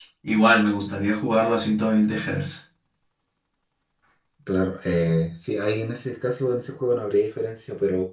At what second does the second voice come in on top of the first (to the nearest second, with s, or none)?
none